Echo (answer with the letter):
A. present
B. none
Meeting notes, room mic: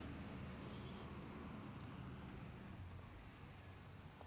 B